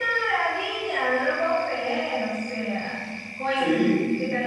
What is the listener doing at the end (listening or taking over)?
listening